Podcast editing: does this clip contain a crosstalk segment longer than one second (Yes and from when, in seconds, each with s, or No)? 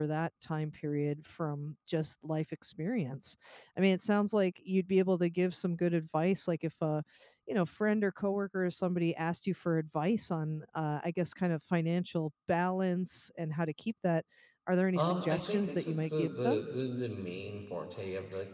Yes, from 14.9 s